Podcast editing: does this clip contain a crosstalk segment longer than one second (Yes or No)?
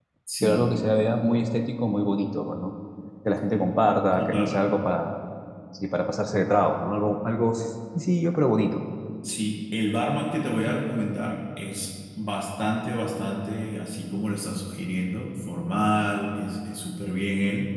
Yes